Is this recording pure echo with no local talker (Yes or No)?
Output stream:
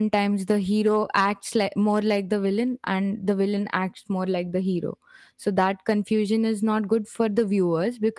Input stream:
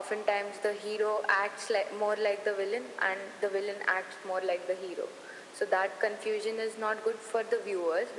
Yes